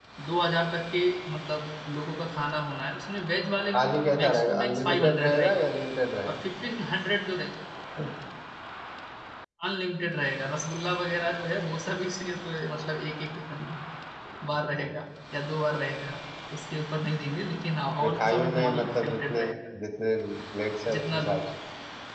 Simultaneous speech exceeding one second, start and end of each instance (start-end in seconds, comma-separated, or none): 4.2-5.5, 18.0-19.4